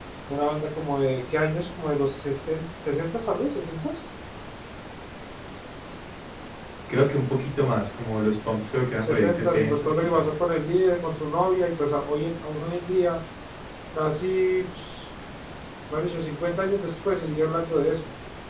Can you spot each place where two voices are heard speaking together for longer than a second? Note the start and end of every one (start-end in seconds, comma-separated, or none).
9.0-10.3